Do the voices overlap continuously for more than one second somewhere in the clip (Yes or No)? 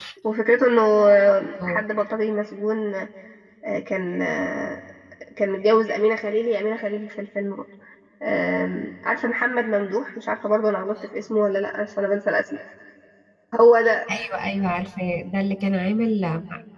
No